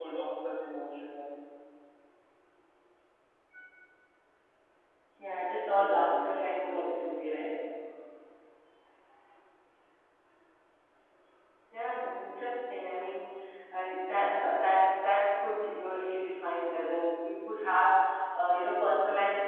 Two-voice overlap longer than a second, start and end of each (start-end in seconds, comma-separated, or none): 5.8-7.1